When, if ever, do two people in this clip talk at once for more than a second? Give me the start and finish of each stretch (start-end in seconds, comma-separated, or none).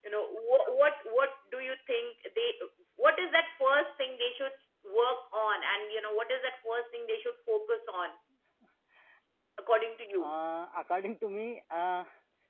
none